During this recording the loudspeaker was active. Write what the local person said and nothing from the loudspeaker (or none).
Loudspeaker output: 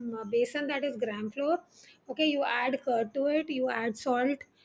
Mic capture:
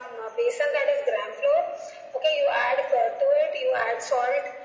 none